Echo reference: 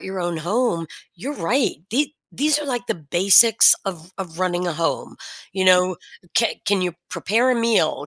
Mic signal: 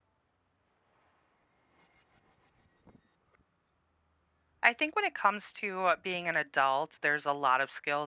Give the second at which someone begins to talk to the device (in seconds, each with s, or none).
4.6 s